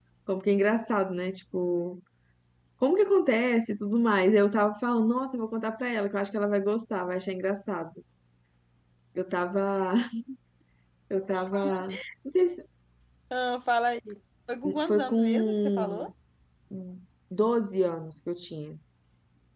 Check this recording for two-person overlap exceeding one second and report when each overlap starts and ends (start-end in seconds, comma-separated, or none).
14.8-16.1